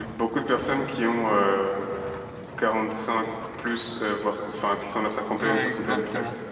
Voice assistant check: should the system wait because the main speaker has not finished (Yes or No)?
No